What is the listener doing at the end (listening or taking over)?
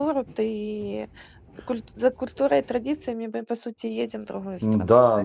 taking over